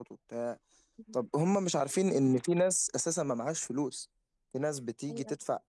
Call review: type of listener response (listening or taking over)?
listening